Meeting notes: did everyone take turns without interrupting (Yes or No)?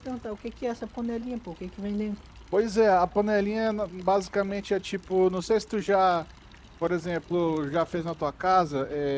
Yes